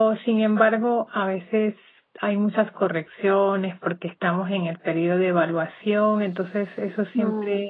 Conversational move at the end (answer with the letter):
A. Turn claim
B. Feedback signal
B